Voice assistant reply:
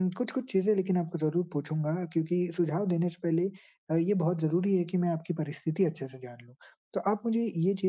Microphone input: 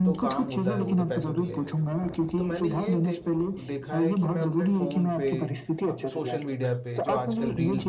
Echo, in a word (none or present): present